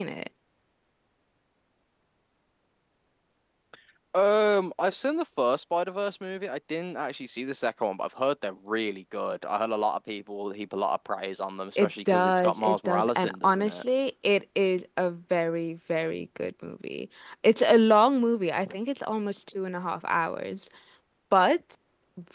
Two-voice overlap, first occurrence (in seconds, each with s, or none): 11.8 s